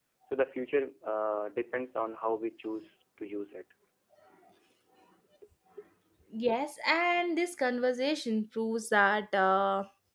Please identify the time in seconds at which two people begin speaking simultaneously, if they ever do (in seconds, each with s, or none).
none